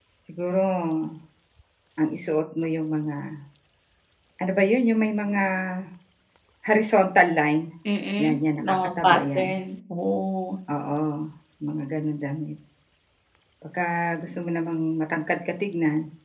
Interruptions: present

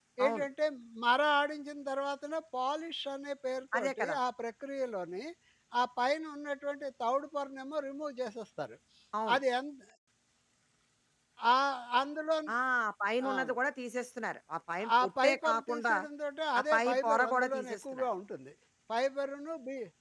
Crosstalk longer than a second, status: present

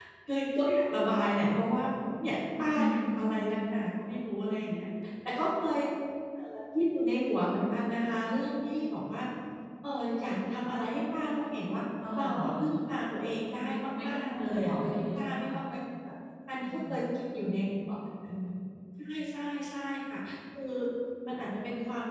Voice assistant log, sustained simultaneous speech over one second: present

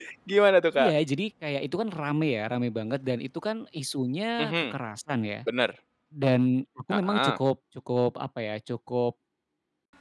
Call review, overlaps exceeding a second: none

